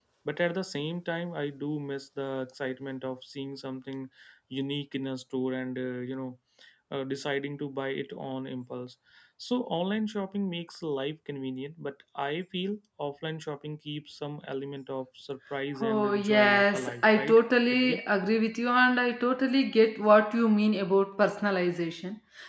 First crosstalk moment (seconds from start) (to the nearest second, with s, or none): 16 s